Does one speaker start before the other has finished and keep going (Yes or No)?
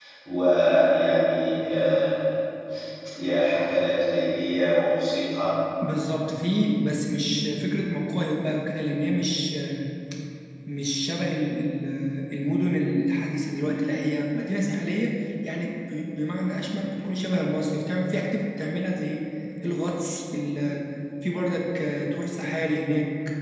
No